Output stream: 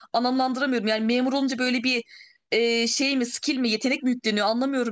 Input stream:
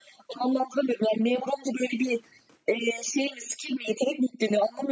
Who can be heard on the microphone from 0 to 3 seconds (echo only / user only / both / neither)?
echo only